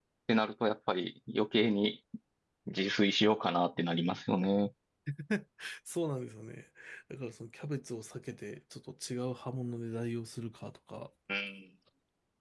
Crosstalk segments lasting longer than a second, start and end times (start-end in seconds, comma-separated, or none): none